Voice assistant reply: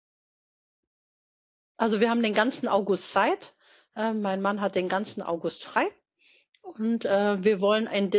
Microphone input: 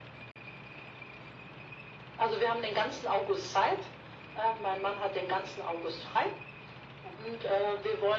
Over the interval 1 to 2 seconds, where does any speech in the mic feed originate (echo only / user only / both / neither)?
neither